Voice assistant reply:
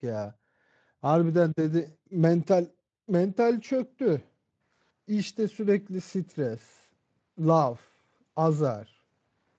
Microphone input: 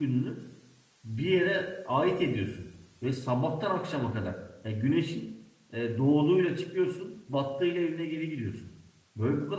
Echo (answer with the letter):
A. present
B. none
B